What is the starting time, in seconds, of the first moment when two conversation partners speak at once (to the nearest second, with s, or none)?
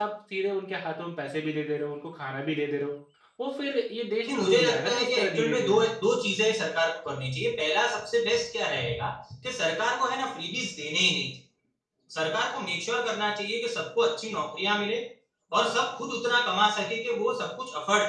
4 s